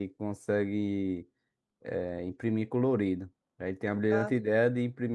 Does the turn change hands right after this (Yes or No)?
No